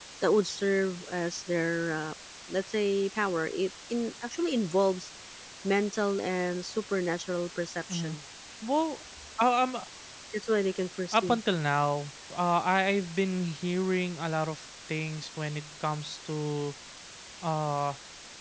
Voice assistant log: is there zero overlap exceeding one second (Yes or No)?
Yes